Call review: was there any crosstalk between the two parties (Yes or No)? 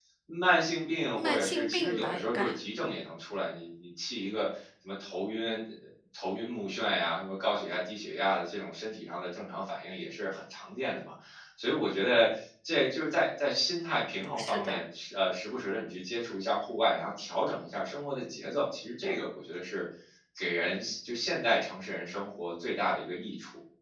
Yes